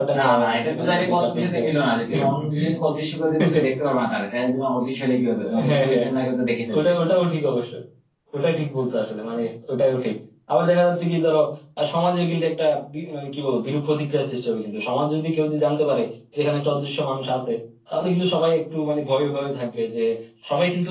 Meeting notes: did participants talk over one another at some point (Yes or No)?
Yes